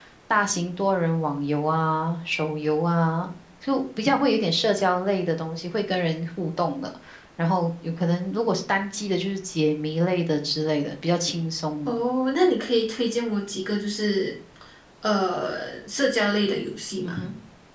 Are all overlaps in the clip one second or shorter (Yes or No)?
Yes